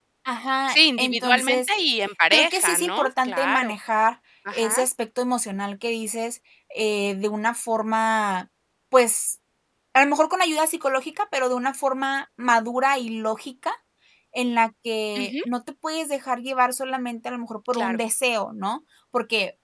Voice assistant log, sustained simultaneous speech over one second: present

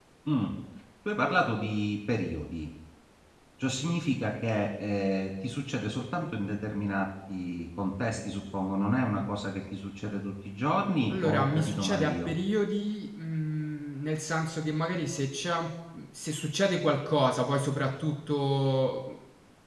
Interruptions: present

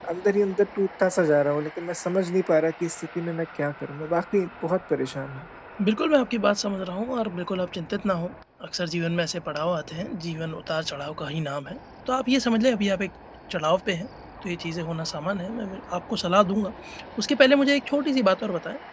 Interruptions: none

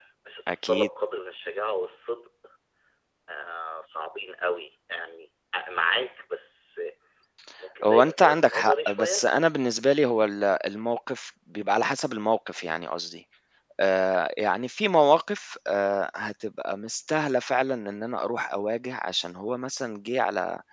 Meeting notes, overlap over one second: present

